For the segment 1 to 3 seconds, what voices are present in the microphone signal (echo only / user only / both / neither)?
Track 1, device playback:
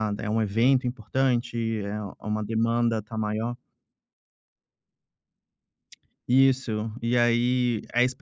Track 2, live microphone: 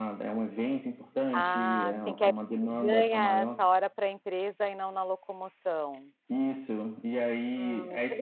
both